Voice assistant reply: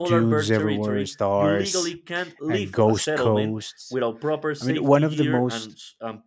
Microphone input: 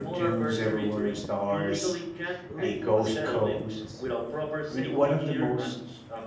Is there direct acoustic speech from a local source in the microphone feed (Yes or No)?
No